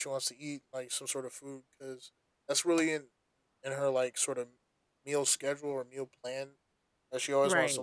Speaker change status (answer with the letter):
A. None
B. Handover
A